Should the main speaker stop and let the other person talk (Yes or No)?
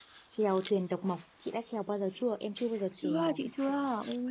Yes